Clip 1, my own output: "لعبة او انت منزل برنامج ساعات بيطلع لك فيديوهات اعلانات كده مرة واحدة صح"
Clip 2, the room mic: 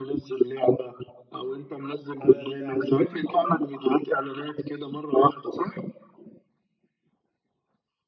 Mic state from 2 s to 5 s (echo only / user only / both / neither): both